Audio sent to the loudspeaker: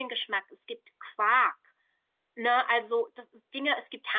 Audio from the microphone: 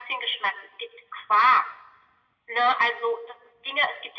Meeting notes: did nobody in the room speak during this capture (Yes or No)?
Yes